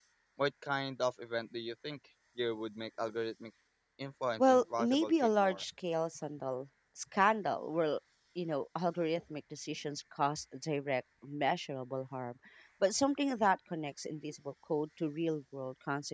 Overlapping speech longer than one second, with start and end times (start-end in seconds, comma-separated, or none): 4.4-5.6